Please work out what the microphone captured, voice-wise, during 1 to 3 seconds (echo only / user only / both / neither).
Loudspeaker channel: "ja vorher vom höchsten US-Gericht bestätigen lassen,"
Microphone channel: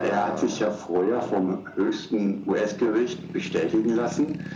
echo only